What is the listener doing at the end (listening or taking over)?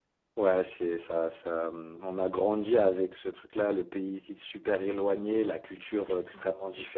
listening